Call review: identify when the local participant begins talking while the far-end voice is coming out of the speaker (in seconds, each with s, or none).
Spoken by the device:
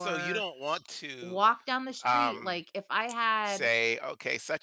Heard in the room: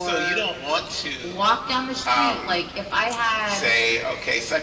none